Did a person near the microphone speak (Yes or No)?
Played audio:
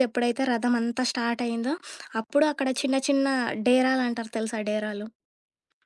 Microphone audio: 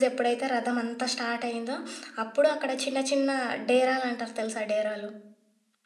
No